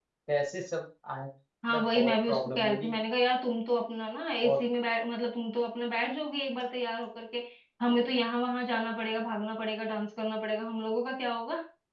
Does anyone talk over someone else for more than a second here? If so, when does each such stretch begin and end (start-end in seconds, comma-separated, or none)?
1.7-3.0